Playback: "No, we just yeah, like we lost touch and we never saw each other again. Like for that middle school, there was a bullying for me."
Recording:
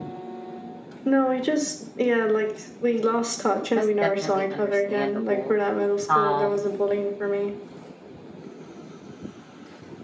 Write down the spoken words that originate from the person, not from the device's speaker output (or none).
that's definitely understandable. Um,